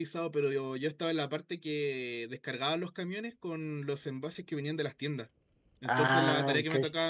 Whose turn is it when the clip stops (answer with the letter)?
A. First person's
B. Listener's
A